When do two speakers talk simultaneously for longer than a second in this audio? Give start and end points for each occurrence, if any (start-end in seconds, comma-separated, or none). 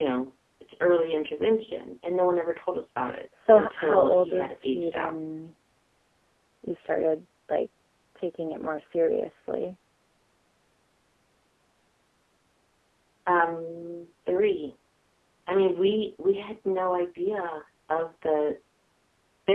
3.5-5.1